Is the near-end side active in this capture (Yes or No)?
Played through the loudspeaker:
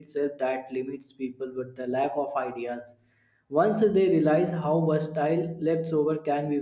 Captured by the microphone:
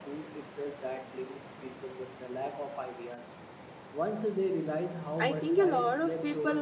Yes